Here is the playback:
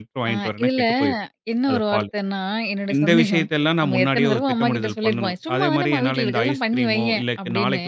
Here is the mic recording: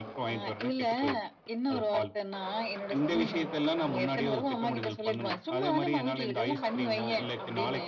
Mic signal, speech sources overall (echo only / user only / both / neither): echo only